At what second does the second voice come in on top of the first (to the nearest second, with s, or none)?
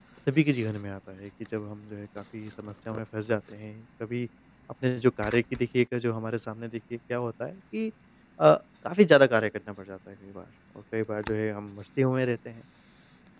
none